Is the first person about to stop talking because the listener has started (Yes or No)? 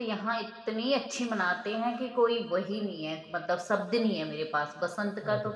No